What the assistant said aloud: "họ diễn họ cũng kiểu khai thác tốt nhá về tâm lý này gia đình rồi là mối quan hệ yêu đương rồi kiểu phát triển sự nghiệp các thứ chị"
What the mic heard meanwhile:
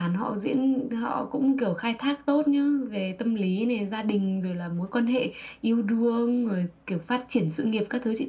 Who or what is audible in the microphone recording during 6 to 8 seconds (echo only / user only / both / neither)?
echo only